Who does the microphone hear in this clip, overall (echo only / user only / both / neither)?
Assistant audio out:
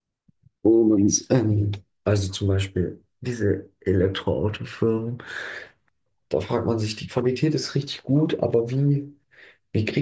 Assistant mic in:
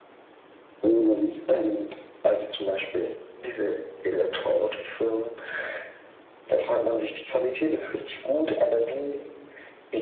echo only